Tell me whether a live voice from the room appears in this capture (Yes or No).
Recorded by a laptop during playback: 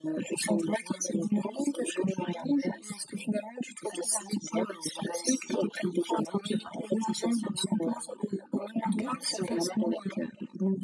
Yes